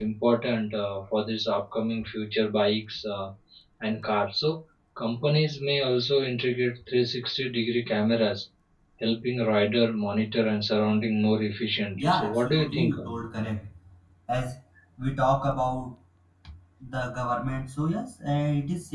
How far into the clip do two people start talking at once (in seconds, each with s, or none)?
12.0 s